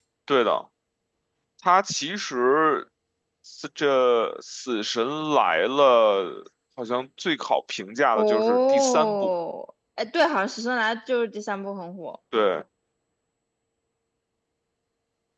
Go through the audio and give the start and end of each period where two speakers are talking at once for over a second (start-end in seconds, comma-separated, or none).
8.1-9.3